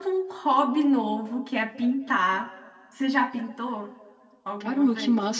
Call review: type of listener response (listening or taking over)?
taking over